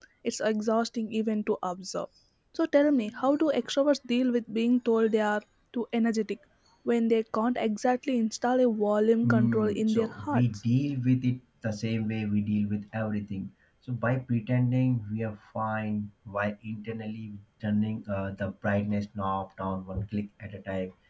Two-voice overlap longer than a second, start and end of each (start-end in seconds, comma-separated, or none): 9.2-10.4